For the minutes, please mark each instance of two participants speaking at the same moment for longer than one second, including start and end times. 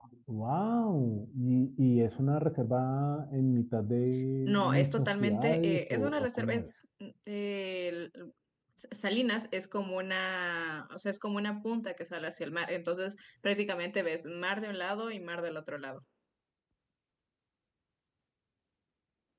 4.5-6.7

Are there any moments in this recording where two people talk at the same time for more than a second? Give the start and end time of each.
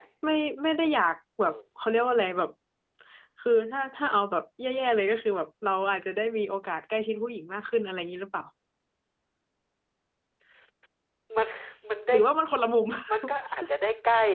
none

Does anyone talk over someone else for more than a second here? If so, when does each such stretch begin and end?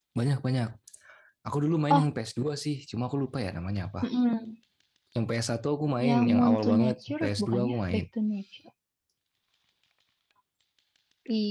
6.1-8.0

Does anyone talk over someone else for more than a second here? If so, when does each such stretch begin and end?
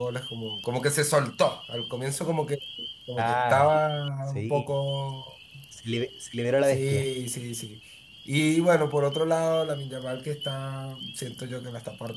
none

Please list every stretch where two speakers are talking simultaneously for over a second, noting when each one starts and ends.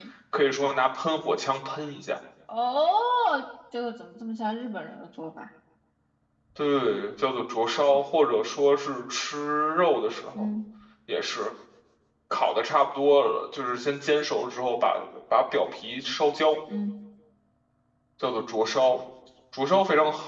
none

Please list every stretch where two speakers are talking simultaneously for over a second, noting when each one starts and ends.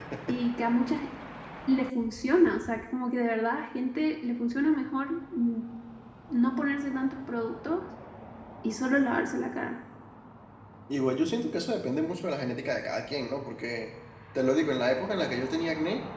none

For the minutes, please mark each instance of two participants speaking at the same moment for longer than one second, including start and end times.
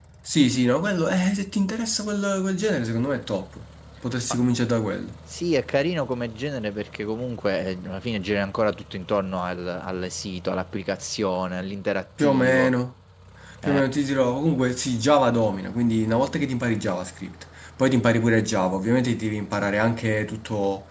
none

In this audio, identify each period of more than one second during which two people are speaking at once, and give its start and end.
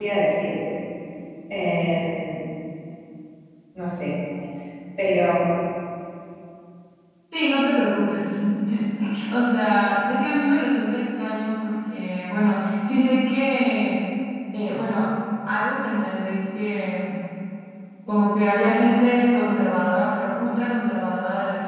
none

